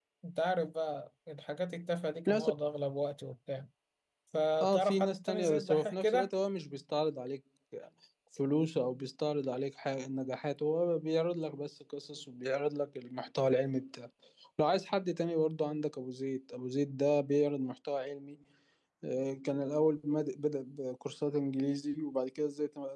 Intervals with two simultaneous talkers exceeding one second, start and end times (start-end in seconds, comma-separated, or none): 4.6-6.3